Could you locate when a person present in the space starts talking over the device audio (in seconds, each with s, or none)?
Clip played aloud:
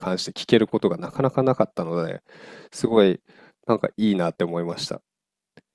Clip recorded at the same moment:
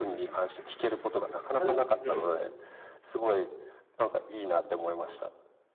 1.6 s